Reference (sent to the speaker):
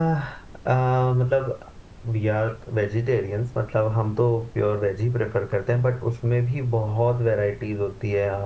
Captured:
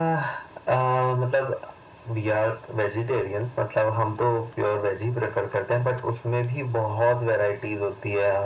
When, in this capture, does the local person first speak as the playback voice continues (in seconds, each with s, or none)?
none